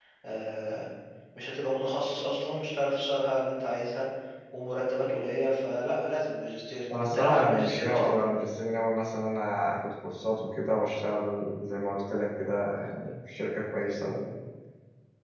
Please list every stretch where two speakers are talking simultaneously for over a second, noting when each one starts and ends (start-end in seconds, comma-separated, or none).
6.9-8.2